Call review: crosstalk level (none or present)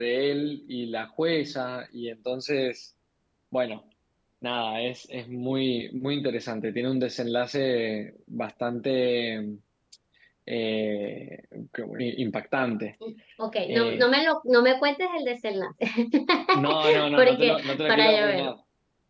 present